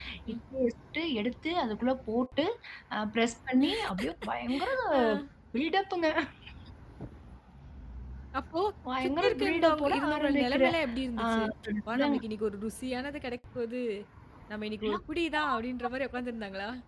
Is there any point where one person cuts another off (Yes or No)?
Yes